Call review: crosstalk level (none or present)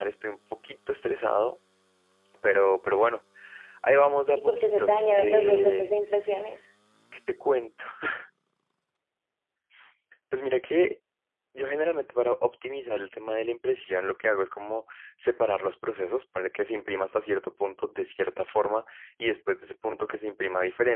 present